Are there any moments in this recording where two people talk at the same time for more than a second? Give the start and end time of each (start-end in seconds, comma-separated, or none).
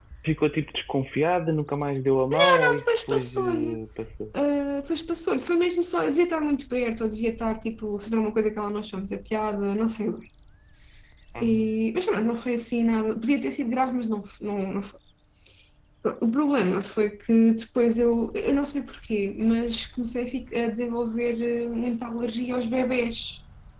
2.4-3.8